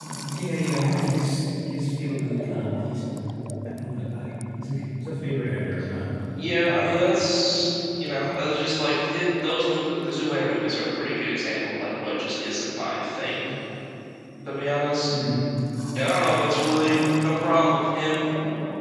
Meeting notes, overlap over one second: none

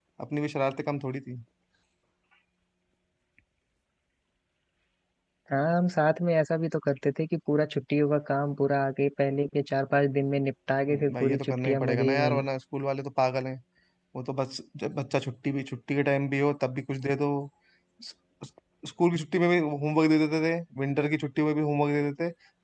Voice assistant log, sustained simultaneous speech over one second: present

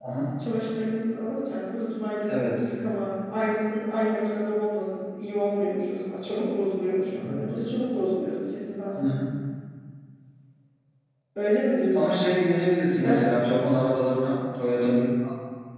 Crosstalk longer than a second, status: none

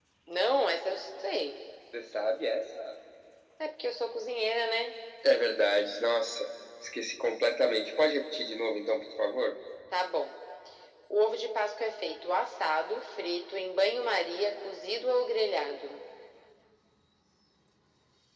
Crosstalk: none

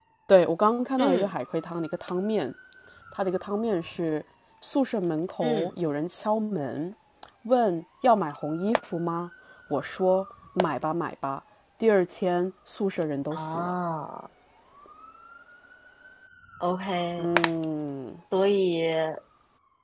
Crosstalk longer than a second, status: none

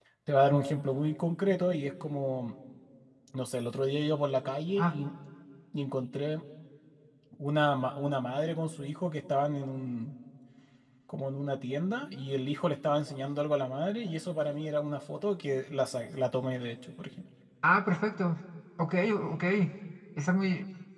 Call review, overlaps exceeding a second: none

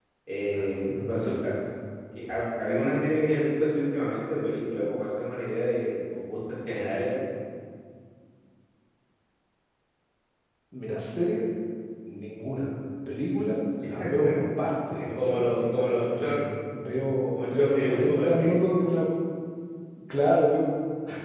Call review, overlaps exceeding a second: present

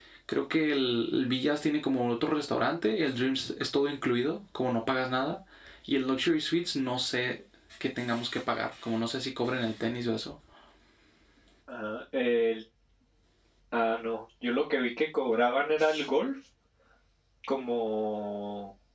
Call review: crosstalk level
none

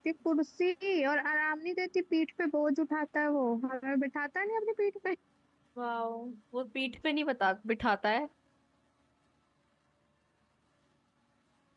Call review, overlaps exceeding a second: none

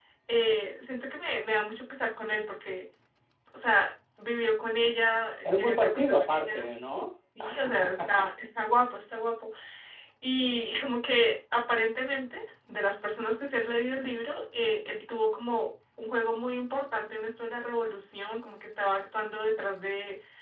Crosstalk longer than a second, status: present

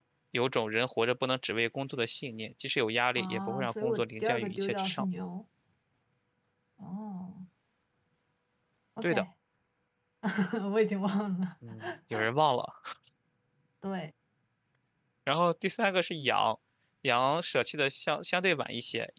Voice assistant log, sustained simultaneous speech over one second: present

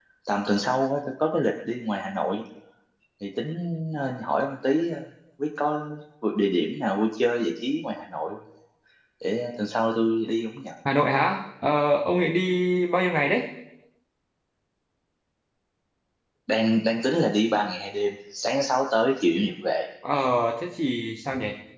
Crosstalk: none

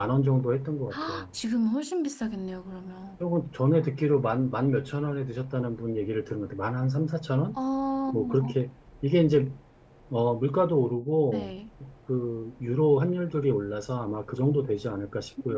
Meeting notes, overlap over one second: none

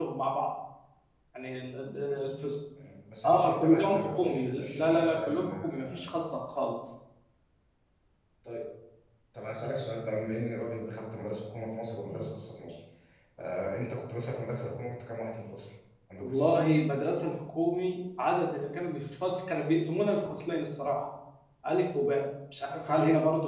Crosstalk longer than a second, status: present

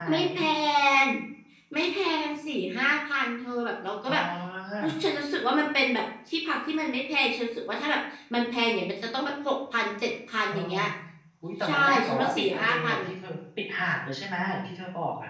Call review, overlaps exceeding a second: present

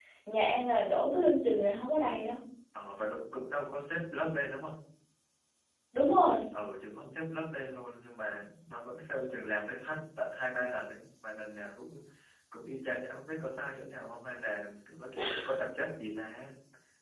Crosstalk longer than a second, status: none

